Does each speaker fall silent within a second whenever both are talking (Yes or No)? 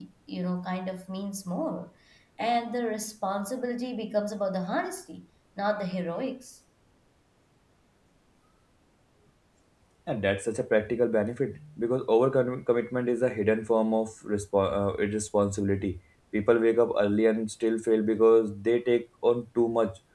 Yes